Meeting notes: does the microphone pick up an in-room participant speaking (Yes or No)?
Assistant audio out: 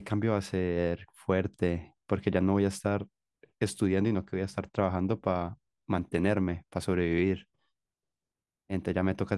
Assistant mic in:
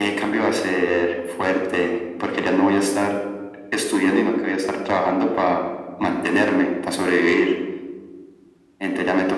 No